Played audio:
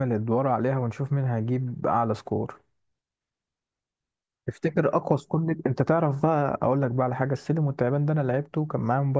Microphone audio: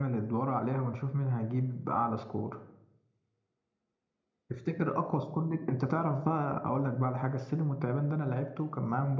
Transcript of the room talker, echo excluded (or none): none